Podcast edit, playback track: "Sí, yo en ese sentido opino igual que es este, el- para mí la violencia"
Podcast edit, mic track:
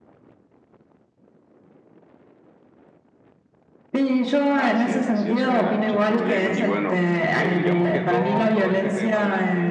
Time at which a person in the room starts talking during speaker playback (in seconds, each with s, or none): 4.5 s